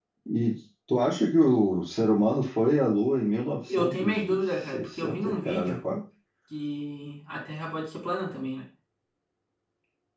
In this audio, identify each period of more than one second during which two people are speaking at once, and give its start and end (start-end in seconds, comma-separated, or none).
3.7-5.8